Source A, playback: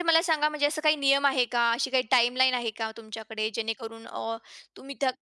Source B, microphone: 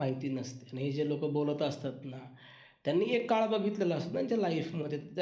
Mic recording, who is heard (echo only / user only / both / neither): user only